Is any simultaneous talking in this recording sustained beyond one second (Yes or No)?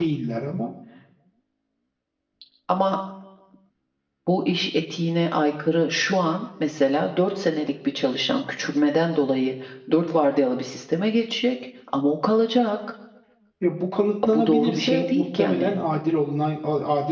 Yes